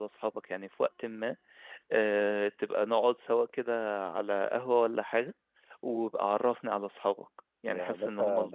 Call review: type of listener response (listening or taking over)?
taking over